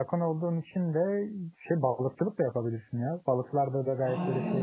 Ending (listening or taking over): taking over